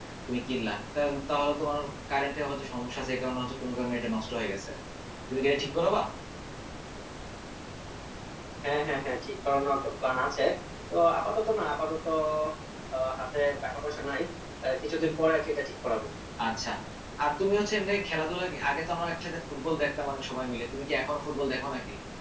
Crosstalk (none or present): none